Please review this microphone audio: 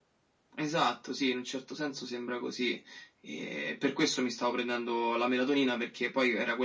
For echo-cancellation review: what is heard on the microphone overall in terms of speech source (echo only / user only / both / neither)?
echo only